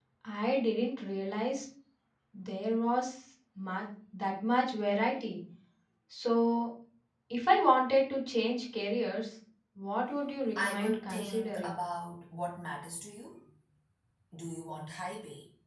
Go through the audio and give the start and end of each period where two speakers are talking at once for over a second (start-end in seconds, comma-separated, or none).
10.6-11.8